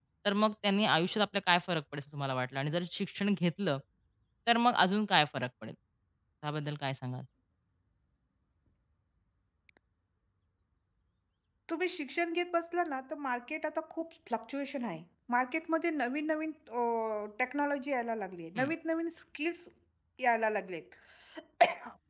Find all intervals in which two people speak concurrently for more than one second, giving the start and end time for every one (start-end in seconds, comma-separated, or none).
none